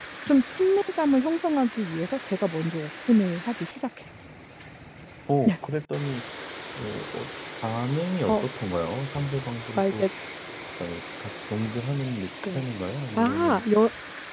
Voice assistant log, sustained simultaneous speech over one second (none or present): none